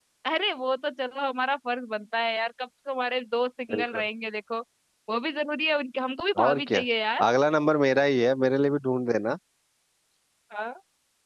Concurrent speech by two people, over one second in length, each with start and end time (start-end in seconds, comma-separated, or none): none